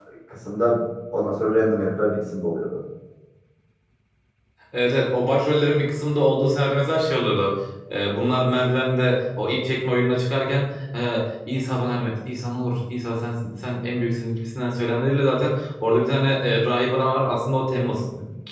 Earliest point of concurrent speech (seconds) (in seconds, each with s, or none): none